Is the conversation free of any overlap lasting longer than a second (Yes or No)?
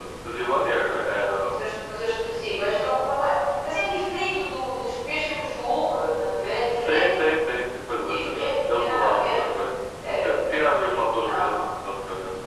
No